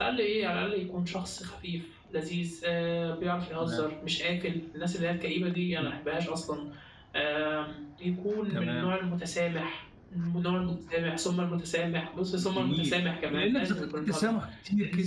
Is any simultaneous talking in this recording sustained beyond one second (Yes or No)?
Yes